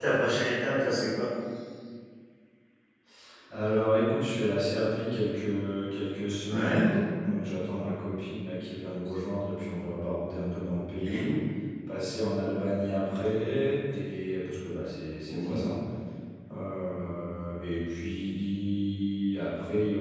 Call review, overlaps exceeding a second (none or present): none